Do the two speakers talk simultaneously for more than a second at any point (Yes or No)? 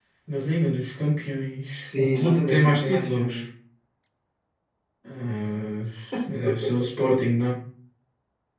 Yes